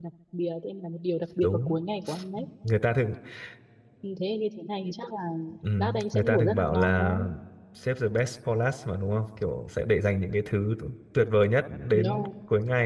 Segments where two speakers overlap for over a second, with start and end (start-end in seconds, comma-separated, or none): 5.8-7.1